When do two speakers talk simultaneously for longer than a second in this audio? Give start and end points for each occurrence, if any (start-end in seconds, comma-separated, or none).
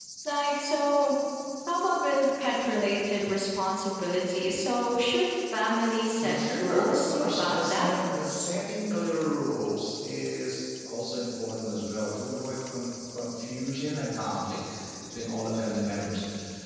6.2-7.9